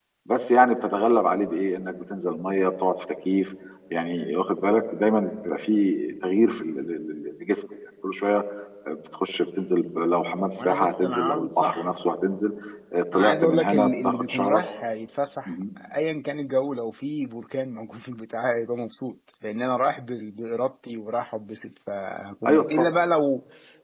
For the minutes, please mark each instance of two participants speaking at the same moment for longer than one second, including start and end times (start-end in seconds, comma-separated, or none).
10.6-11.9, 13.1-14.6